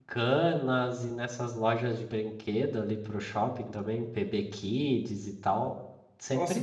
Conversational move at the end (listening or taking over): taking over